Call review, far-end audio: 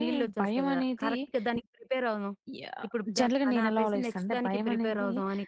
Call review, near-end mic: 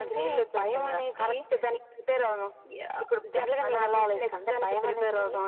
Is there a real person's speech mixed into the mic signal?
No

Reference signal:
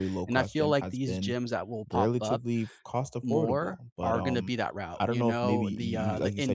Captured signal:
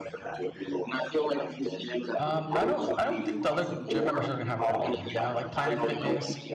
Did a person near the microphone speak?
Yes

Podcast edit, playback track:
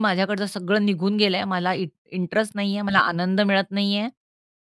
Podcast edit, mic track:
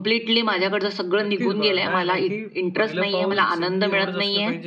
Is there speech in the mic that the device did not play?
Yes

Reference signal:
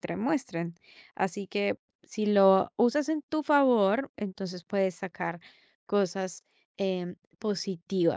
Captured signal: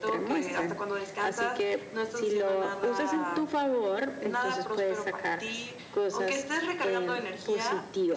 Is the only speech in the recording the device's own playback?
No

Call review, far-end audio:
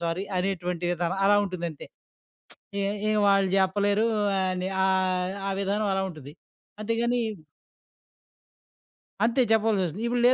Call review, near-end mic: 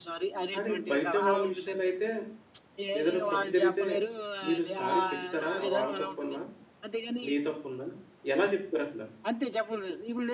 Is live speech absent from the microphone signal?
No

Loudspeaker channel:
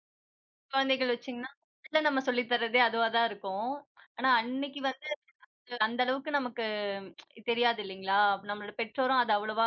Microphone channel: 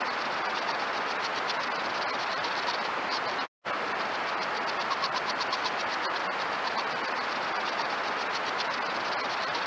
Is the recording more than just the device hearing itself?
No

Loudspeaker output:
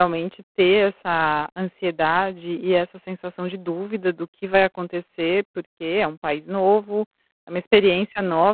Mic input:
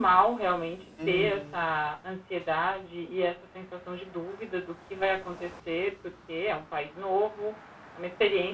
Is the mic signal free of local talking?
No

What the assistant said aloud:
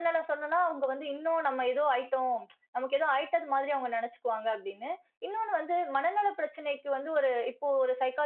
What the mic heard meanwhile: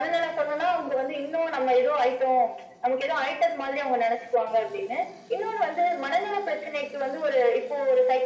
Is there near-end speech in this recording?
No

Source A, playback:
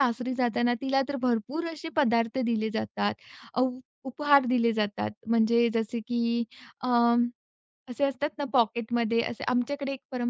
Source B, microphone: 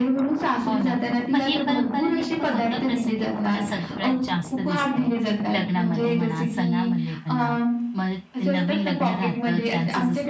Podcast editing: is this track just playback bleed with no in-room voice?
No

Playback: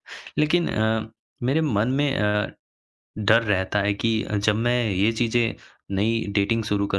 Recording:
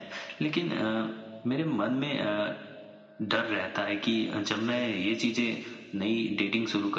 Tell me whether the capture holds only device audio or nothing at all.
Yes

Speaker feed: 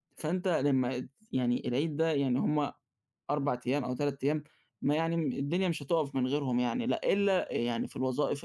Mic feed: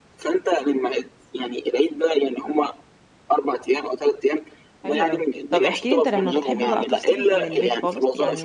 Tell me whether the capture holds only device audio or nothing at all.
No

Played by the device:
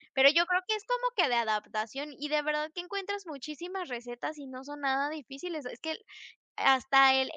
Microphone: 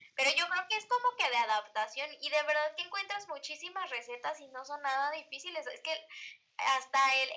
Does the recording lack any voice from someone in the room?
Yes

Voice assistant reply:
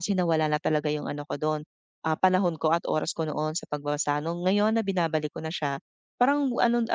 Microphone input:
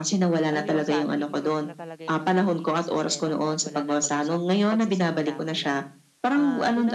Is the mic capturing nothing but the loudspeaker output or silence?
No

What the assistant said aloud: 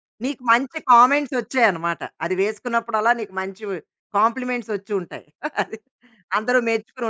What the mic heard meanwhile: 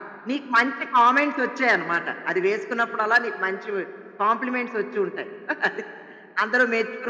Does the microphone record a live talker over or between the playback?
No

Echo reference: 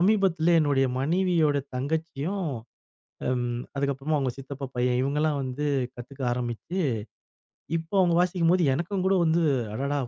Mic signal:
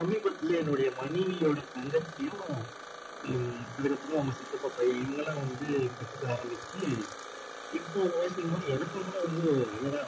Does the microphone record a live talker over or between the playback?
No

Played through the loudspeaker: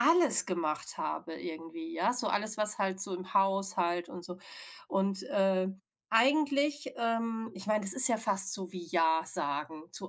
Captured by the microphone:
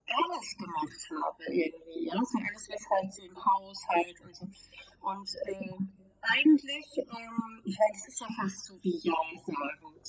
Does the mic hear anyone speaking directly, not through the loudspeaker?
No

